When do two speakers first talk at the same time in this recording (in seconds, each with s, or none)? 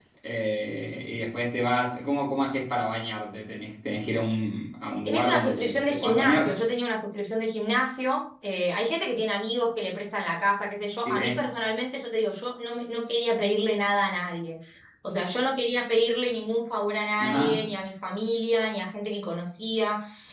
5.0 s